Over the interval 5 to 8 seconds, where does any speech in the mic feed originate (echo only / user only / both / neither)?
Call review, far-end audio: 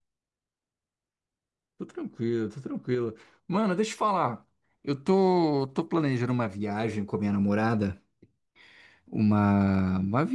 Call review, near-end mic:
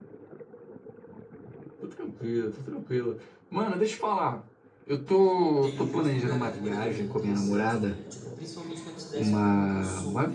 both